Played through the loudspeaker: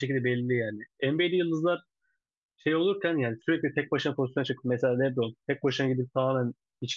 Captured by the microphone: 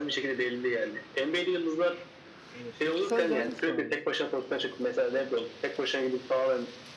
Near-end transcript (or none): Evet. Peki sence hangisi daha iyi?